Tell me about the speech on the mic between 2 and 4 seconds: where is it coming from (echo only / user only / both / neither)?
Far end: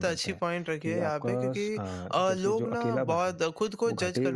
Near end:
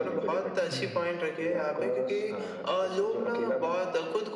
echo only